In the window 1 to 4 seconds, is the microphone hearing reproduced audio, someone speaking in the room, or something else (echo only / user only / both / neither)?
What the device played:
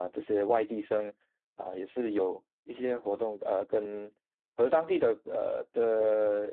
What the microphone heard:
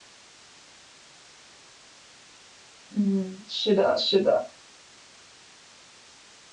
user only